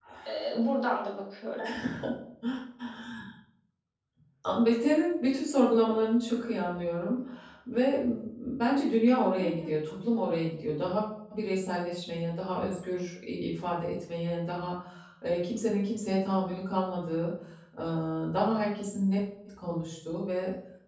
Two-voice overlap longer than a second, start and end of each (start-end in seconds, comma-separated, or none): none